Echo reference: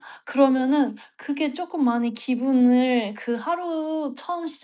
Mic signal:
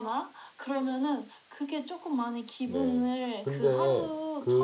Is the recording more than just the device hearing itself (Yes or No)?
Yes